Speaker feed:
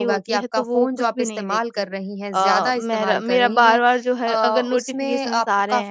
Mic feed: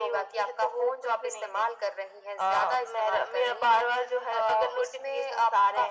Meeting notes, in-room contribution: none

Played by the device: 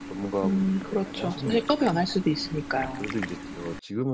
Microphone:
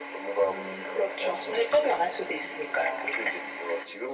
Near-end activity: none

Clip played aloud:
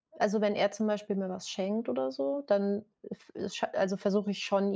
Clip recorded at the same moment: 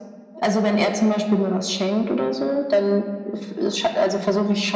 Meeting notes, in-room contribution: none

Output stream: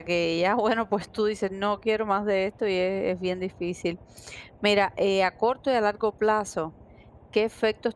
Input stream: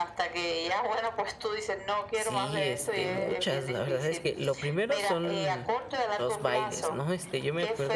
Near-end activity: present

